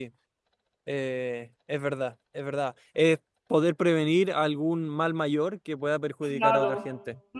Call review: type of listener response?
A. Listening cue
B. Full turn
B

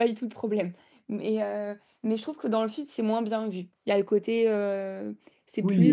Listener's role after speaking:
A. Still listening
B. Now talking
B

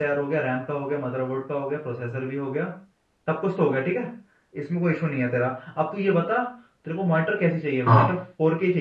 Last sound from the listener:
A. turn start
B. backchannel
B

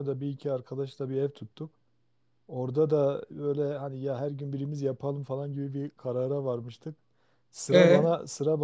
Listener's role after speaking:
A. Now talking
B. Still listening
B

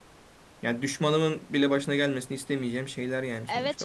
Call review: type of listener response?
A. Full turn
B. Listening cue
A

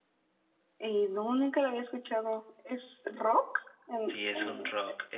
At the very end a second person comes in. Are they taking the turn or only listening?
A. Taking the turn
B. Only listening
A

